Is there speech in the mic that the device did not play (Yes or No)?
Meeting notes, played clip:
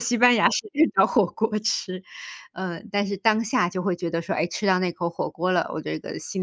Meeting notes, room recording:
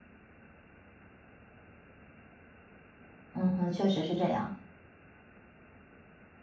Yes